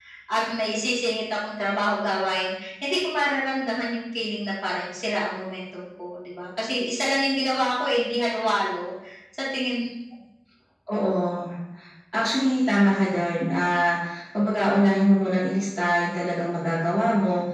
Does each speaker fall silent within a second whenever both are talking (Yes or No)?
Yes